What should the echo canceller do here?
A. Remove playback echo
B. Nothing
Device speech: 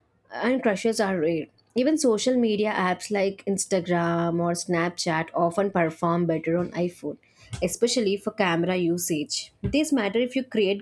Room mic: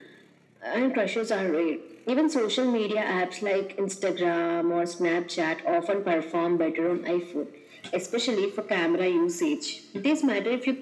A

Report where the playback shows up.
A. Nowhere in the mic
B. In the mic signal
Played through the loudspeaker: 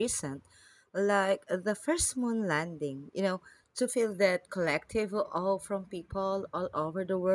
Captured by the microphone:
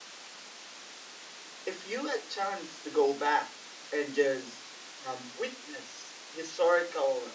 A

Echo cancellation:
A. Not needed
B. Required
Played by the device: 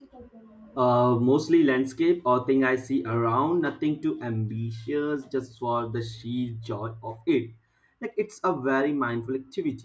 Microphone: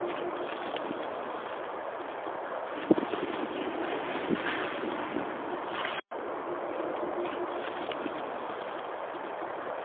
A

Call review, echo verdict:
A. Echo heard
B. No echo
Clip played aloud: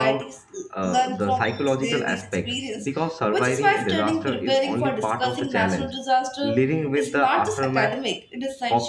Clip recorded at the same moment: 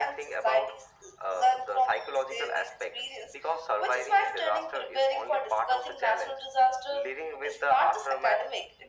A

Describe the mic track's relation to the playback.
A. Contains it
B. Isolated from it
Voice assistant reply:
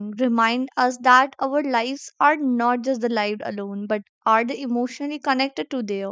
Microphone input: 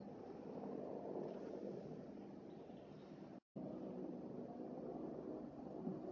B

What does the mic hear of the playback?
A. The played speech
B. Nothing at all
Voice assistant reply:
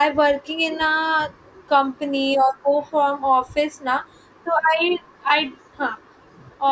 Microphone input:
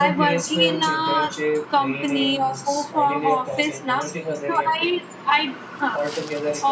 A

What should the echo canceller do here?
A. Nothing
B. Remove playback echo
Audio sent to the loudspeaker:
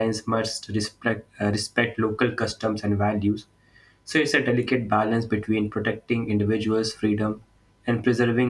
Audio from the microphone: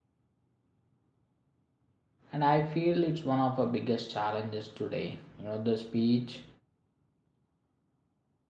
A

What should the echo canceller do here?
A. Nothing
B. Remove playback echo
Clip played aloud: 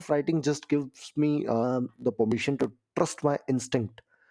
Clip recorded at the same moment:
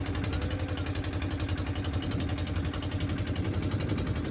A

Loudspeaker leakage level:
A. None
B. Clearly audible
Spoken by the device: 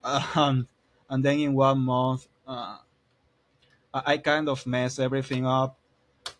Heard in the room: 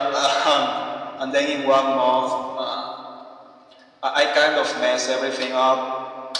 B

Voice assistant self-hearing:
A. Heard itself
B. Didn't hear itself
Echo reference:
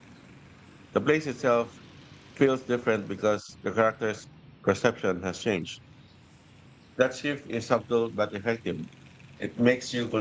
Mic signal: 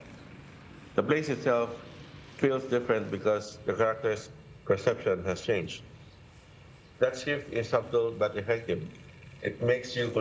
A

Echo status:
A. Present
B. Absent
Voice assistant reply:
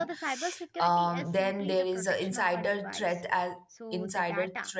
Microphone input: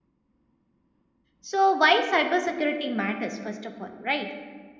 B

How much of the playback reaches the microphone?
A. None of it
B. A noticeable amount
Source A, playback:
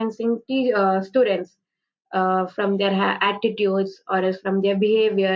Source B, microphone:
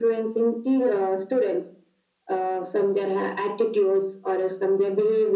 B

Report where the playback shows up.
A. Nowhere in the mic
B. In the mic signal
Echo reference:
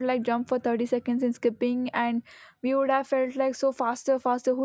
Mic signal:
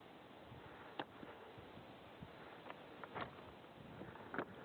A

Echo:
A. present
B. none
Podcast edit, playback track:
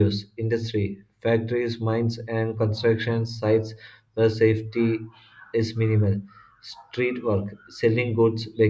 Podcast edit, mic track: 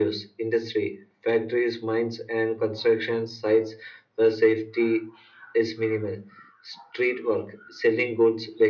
A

